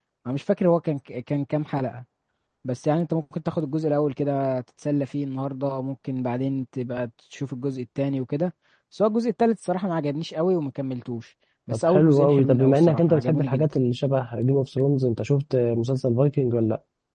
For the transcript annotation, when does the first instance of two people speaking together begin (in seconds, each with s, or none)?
11.7 s